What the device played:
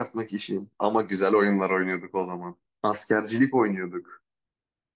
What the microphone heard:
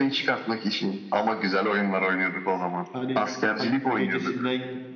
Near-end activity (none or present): present